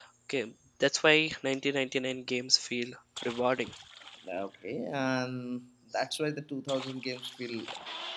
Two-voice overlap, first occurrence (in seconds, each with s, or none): none